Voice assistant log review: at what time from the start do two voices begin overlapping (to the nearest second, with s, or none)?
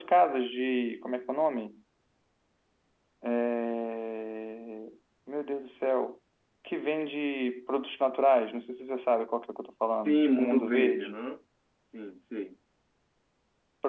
10 s